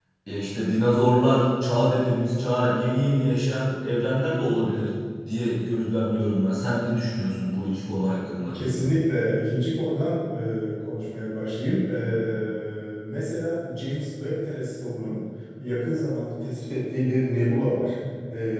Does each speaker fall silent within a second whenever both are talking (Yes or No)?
Yes